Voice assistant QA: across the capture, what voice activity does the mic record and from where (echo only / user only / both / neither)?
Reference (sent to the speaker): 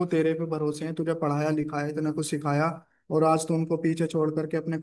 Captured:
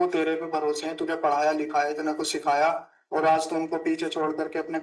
echo only